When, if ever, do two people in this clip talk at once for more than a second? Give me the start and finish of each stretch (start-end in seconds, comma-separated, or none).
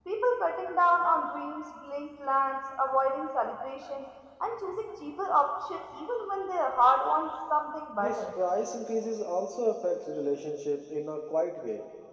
none